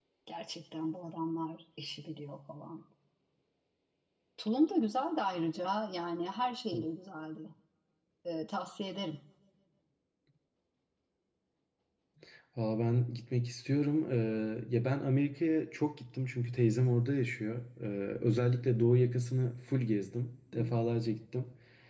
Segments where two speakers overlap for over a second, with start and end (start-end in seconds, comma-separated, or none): none